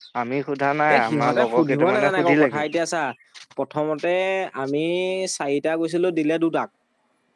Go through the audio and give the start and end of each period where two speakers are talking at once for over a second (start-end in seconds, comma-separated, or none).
1.0-2.7